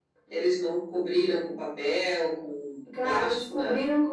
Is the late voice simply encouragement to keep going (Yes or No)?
No